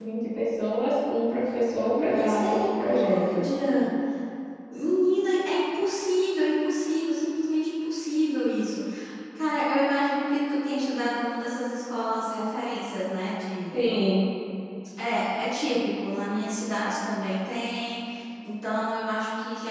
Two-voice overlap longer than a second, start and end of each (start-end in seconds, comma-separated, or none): 2.1-3.4